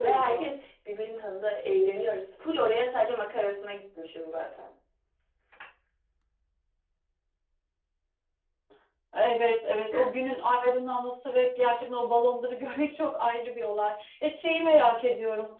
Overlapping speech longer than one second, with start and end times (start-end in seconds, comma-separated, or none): none